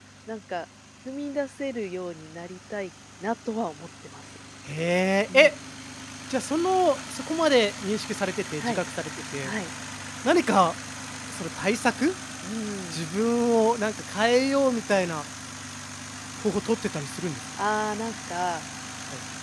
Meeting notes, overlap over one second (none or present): none